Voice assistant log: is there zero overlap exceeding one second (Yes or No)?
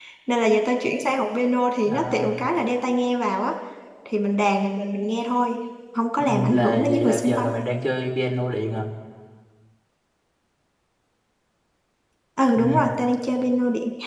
No